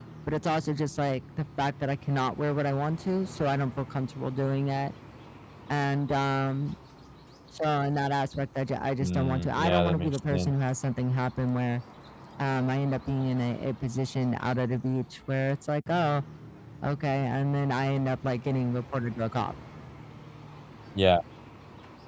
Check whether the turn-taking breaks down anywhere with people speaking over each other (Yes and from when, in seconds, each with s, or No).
Yes, from 9.0 s